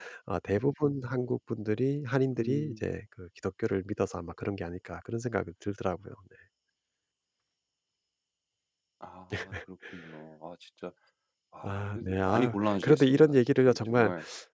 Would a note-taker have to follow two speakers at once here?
Yes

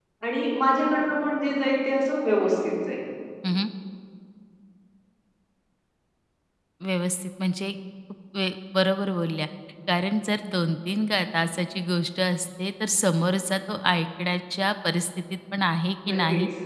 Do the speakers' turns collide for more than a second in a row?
No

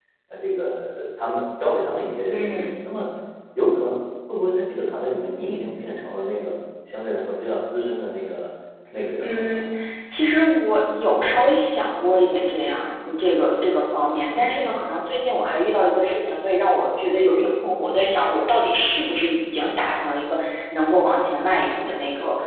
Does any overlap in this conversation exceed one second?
No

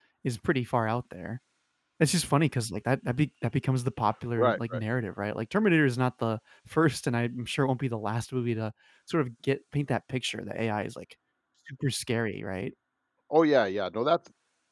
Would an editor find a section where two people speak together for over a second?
No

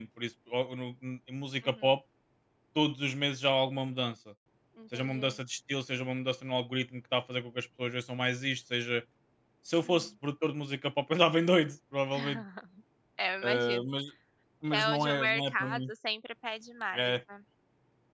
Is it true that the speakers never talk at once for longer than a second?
No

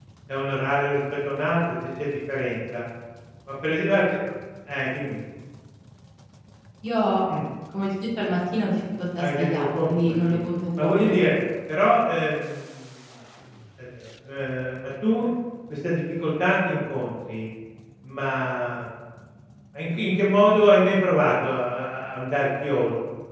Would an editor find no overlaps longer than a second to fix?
No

